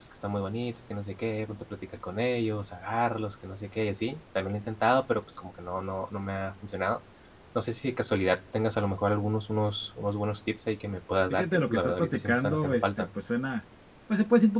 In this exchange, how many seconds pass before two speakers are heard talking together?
11.3 s

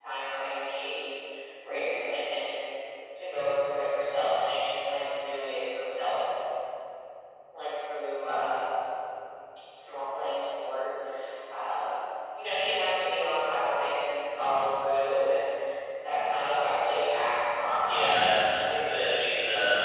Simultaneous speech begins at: 17.7 s

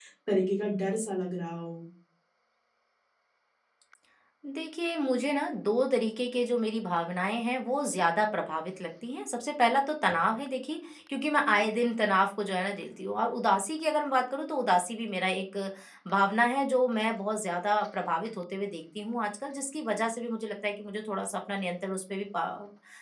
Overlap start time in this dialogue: none

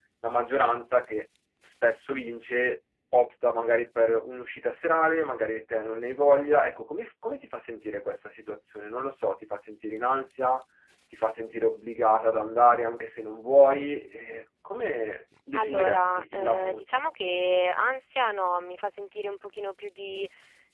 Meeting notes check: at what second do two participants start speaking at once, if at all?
15.5 s

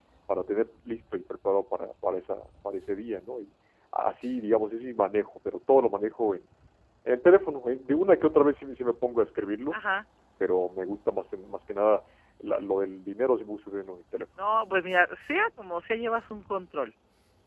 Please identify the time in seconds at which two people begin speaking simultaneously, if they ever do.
none

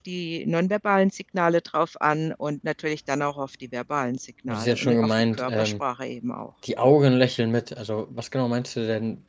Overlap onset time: 4.5 s

